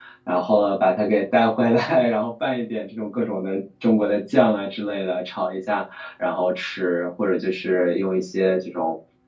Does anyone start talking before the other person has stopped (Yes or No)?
No